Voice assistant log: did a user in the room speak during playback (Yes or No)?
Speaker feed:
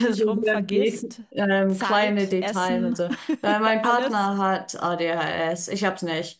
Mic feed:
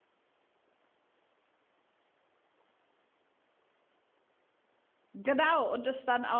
Yes